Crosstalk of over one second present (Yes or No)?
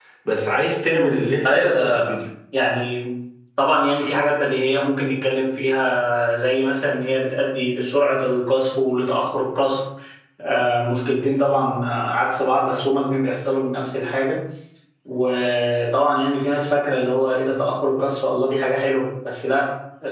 Yes